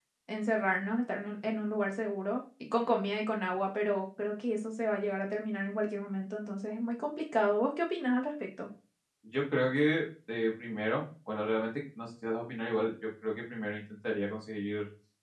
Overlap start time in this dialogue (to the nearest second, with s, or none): none